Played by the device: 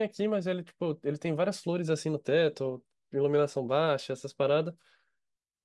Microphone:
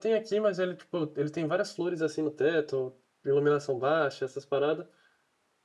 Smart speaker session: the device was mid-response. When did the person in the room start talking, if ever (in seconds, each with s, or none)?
none